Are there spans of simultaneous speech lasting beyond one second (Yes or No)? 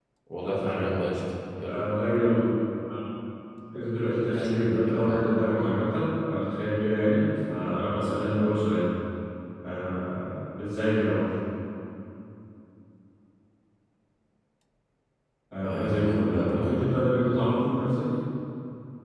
Yes